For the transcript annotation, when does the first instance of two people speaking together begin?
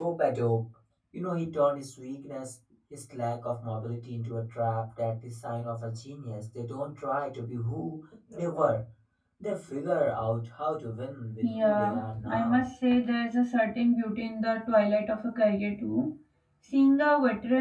11 s

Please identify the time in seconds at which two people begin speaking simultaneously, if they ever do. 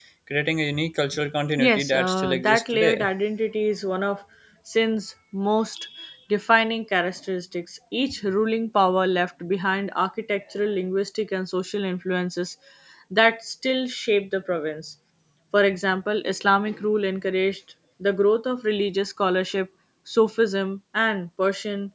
2 s

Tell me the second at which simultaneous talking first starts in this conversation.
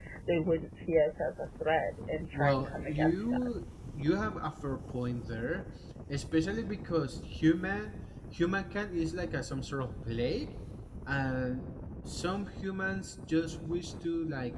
2 s

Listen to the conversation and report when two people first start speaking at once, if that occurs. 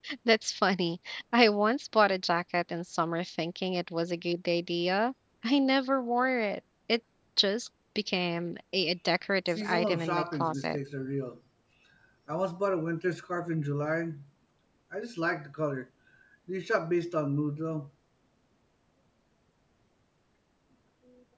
9 s

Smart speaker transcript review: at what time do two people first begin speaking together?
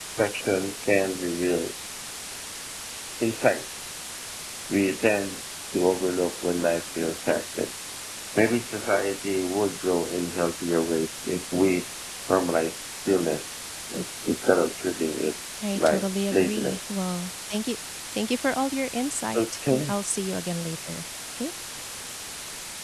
16 s

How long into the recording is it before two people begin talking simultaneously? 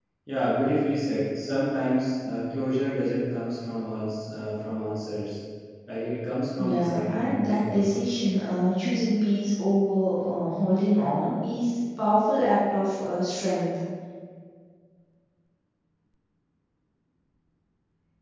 7 s

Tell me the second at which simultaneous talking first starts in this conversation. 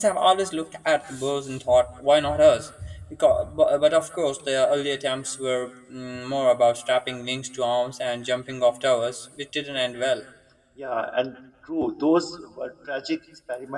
none

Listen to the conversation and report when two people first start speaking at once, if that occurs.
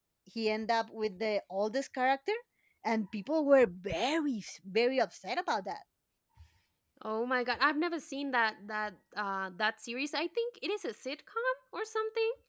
none

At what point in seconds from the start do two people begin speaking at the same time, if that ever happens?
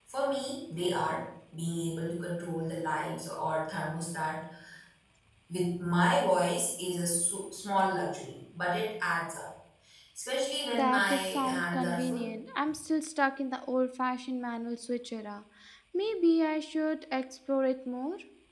11 s

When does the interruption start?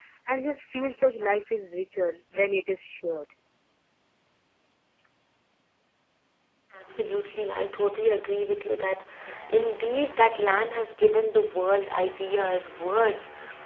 none

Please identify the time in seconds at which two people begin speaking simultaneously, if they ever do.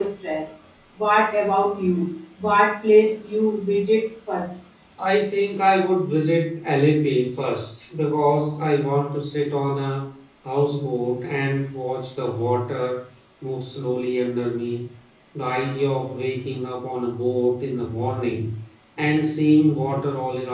none

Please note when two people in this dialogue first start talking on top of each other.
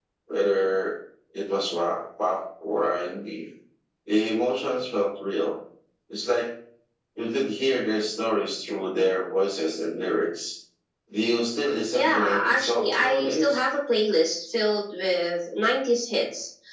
12 s

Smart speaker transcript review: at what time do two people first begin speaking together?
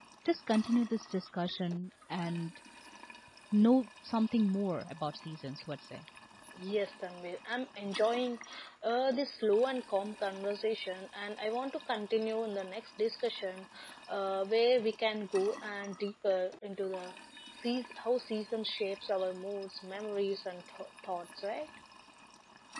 none

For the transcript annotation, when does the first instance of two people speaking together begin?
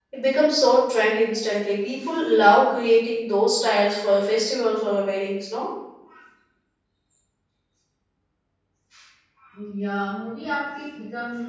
none

